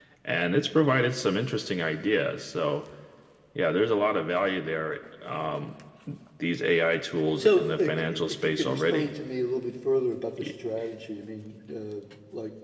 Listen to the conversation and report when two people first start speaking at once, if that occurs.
7.4 s

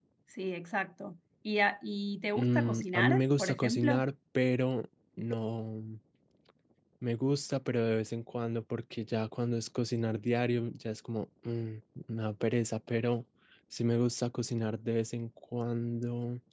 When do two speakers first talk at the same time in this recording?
2.4 s

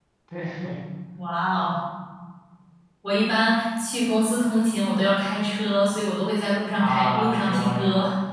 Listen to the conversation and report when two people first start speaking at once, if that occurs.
6.8 s

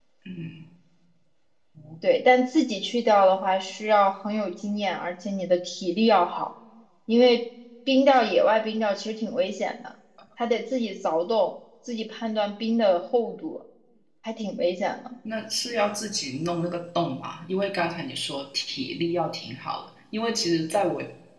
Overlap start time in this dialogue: none

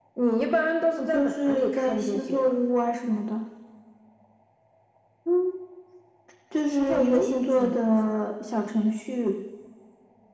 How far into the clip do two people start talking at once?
1.0 s

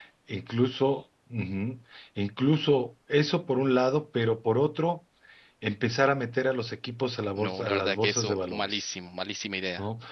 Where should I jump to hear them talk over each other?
7.4 s

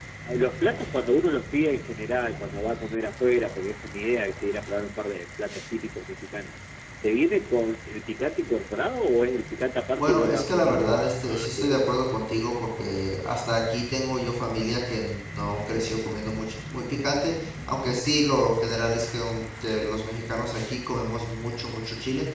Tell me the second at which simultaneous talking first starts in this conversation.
10.0 s

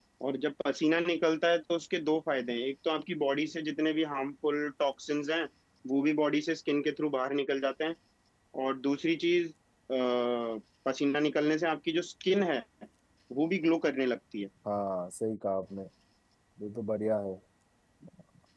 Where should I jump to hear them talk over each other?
none

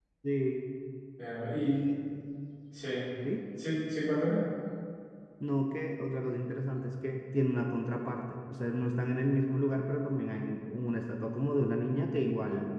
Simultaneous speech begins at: none

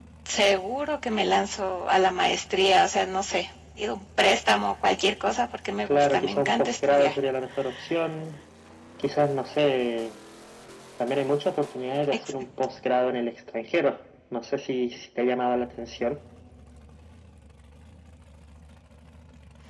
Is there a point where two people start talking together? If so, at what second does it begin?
5.9 s

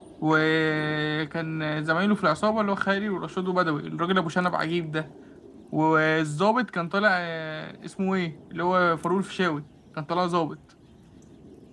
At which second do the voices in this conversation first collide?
none

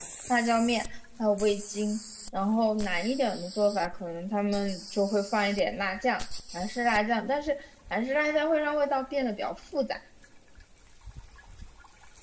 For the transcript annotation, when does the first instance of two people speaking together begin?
none

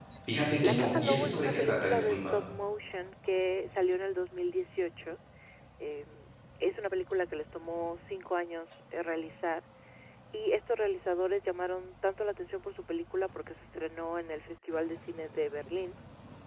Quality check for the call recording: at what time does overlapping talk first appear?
0.6 s

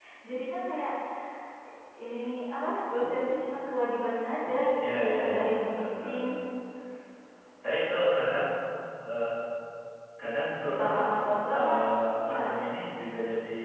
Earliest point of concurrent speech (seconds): 4.9 s

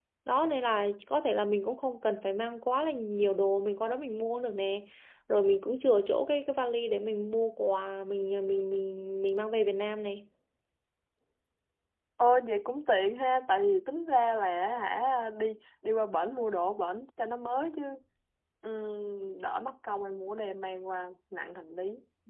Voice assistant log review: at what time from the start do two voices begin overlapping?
none

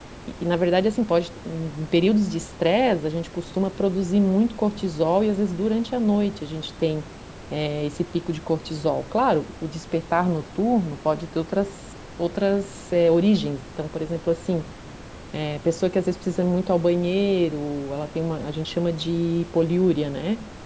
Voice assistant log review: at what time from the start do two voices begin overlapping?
none

